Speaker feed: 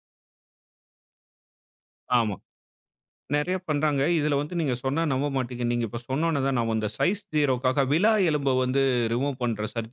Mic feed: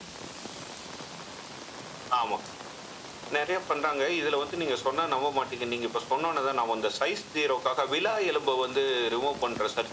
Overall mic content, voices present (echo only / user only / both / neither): echo only